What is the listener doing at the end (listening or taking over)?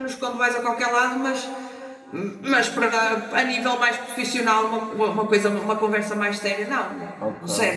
taking over